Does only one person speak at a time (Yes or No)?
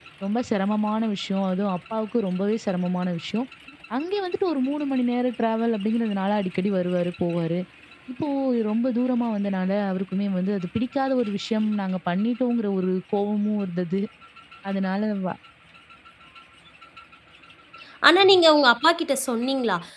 Yes